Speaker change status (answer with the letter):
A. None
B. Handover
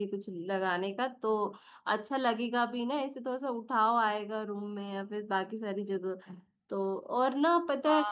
B